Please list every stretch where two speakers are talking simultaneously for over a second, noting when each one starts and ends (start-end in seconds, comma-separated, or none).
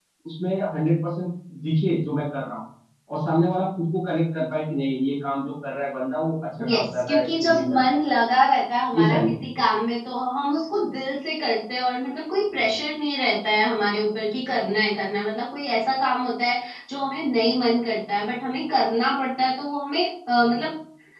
6.7-8.0